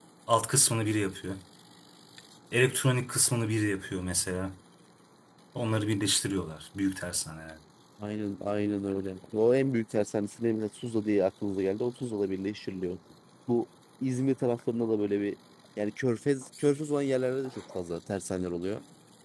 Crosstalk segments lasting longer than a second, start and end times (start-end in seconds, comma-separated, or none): none